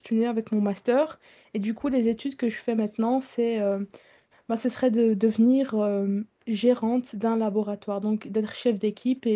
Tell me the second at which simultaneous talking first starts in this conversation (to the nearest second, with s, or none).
none